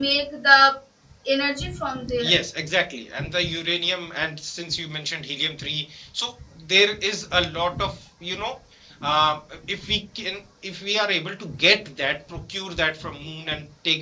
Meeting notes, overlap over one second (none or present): none